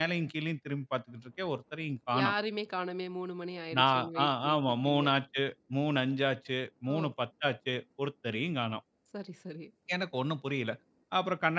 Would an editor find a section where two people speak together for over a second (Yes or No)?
Yes